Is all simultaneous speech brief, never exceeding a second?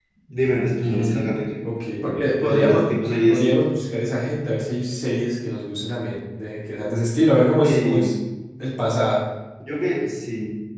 Yes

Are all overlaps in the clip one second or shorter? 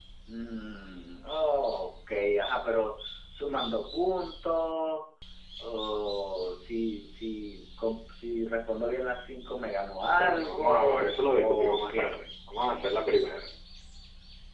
No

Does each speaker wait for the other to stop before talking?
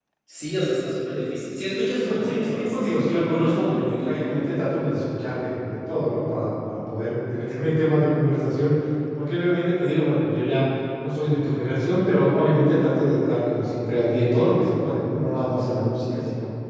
No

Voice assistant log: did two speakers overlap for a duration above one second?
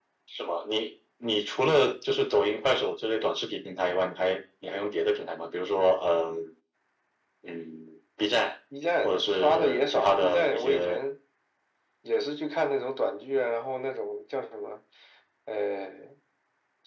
Yes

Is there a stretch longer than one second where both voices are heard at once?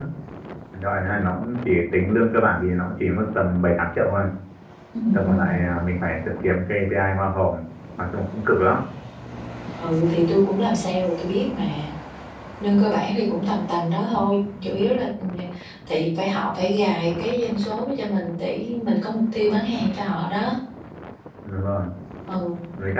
No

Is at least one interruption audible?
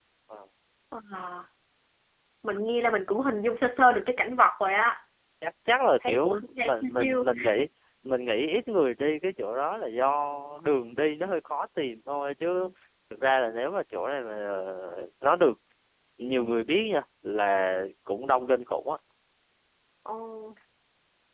Yes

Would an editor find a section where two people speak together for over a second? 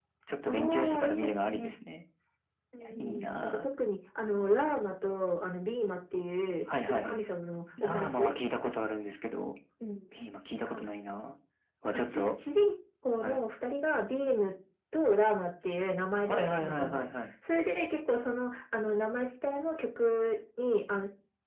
Yes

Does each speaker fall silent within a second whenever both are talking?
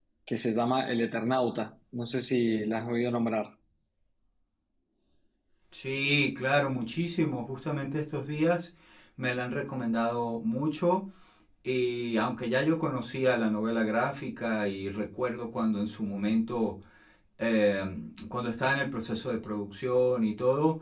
Yes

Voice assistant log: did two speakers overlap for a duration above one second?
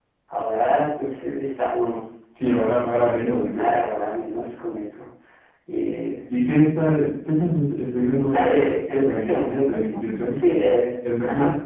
Yes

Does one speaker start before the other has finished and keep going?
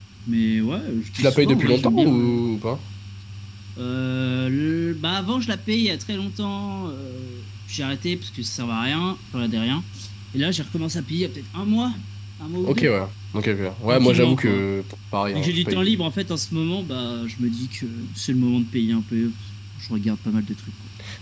Yes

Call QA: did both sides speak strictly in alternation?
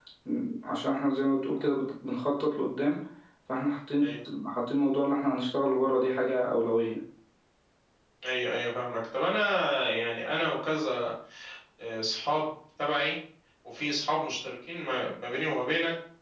Yes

